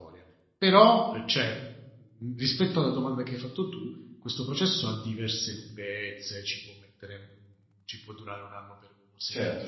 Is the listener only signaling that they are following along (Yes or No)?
No